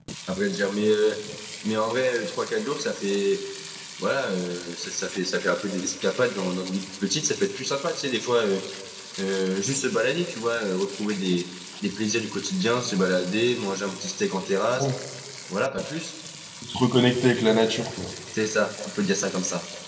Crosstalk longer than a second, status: none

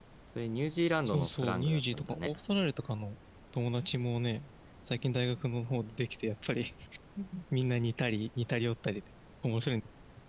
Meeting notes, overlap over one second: present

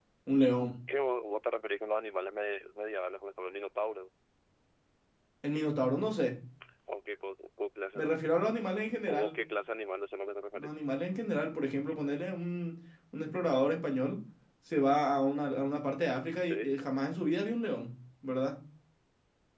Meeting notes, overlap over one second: none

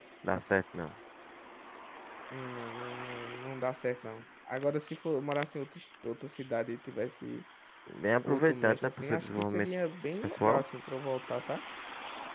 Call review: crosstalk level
present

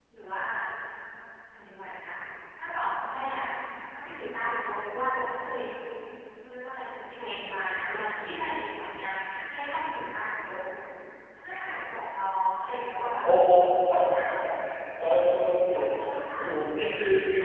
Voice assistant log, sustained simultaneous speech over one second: none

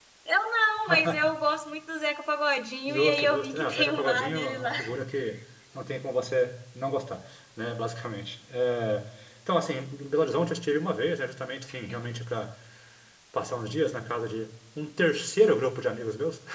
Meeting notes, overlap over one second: present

